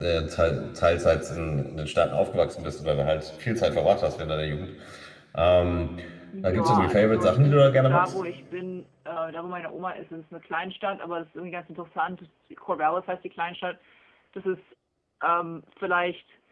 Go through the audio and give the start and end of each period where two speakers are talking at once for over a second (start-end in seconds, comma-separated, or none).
6.4-8.2